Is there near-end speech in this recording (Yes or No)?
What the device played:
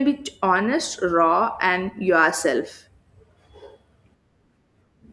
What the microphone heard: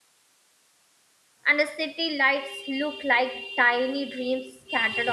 Yes